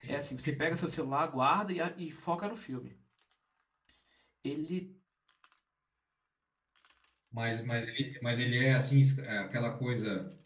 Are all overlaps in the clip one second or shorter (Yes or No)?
Yes